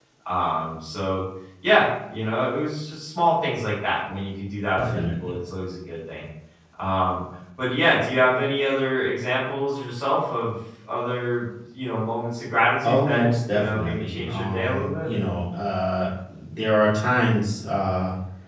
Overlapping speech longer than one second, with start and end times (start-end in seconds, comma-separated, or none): 12.8-15.1